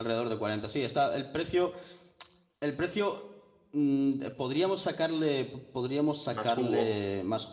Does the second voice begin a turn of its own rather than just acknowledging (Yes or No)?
No